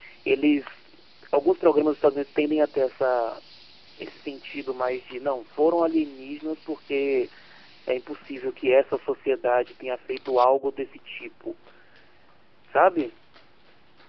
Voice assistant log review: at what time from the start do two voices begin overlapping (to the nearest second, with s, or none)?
none